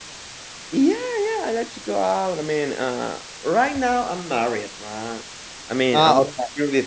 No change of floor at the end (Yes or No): Yes